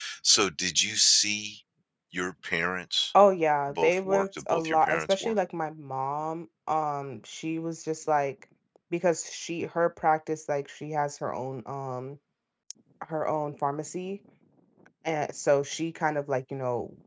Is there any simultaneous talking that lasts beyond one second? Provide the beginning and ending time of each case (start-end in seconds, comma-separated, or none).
3.7-5.4